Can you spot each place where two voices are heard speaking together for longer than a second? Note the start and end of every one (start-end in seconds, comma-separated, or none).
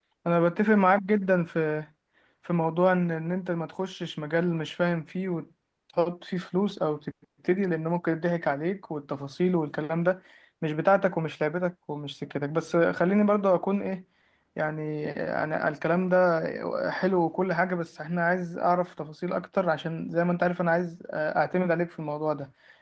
none